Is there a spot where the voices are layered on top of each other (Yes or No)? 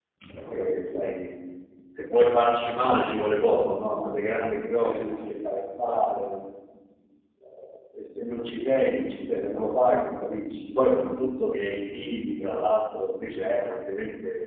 Yes